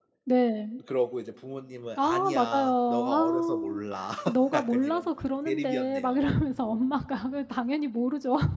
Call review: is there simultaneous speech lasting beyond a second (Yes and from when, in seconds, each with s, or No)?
Yes, from 2.0 s